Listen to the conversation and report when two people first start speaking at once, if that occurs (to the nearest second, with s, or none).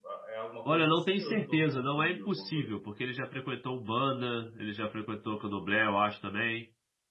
1 s